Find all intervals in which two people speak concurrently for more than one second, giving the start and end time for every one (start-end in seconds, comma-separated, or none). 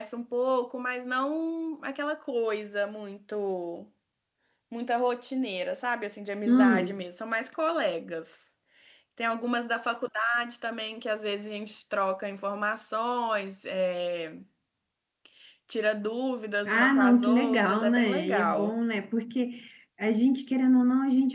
16.7-18.8